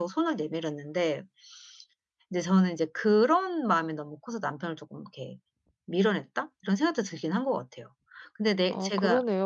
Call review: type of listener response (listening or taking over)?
taking over